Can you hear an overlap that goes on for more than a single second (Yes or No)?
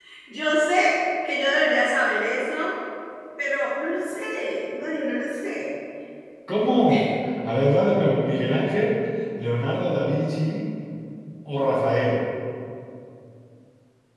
No